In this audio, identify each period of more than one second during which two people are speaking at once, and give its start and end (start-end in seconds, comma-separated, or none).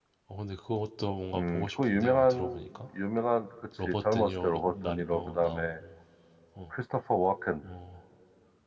1.3-2.7, 3.9-5.7